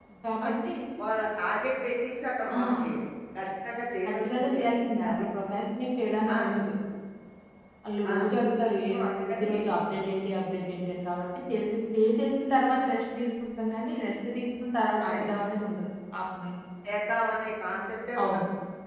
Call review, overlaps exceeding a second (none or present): none